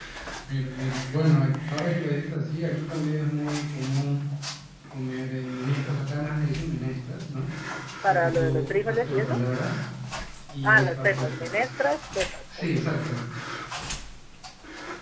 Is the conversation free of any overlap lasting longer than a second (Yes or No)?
No